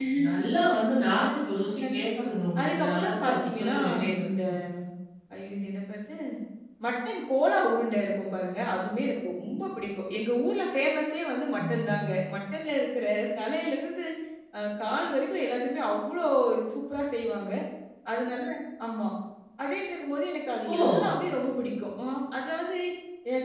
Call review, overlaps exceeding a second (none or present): present